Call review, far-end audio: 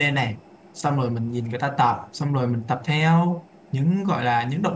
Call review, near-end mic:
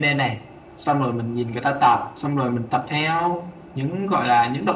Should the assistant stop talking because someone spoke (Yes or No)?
No